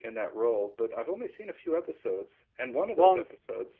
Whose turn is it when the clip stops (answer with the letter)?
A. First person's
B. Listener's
A